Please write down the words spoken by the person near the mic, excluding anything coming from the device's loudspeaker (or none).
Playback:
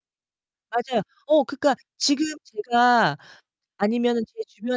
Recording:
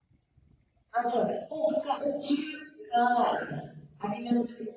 none